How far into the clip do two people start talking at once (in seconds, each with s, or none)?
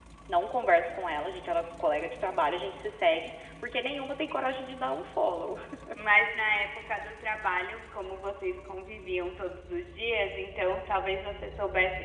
none